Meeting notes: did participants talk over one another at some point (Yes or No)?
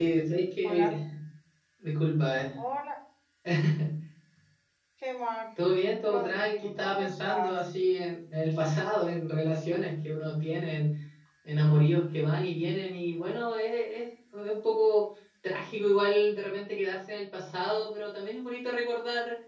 Yes